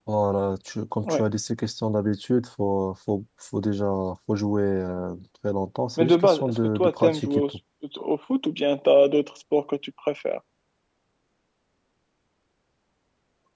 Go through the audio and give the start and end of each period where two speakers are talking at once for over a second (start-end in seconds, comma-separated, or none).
6.0-7.6